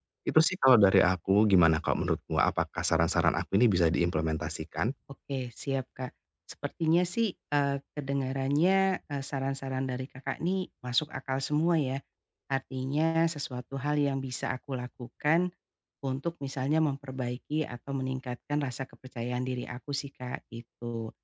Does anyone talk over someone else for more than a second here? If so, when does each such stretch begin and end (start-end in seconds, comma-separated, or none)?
none